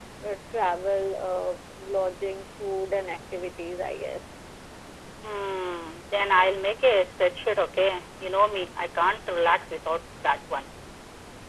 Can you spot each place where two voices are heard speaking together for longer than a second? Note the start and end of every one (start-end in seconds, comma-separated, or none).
none